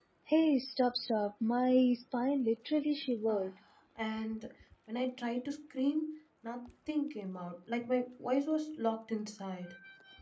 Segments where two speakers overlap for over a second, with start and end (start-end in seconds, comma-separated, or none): none